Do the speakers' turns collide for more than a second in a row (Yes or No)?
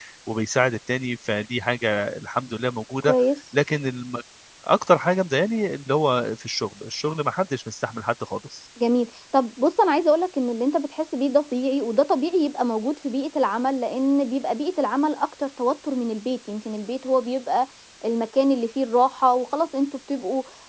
No